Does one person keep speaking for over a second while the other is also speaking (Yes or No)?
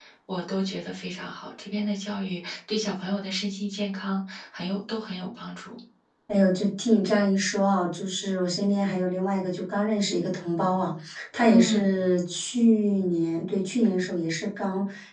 No